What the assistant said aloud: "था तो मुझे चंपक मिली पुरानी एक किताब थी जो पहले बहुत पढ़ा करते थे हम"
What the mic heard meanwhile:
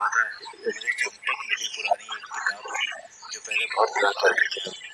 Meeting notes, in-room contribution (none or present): none